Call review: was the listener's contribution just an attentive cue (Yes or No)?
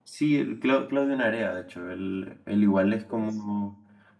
Yes